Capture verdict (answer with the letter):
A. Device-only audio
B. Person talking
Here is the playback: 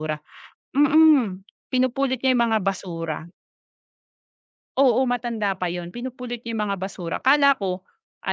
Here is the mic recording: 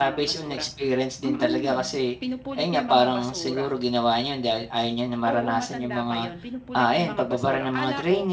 B